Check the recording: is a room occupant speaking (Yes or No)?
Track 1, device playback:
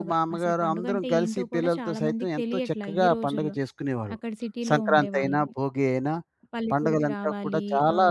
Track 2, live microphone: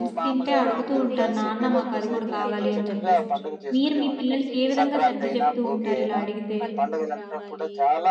Yes